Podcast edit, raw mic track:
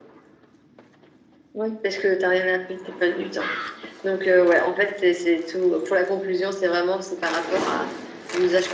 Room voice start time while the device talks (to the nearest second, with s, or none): none